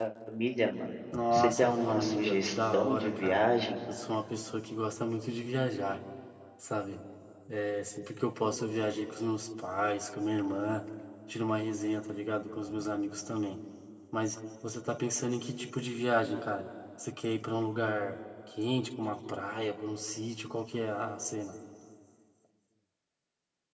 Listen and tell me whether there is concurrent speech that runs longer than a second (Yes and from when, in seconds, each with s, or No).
Yes, from 1.1 s